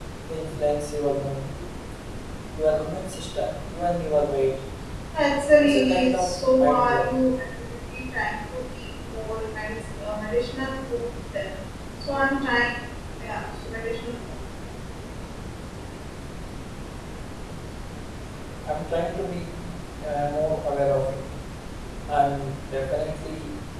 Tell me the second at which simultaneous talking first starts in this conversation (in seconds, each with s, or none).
5.6 s